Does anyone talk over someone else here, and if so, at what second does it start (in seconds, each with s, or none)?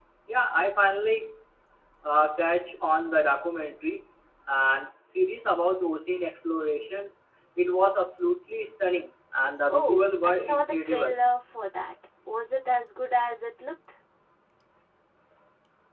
9.7 s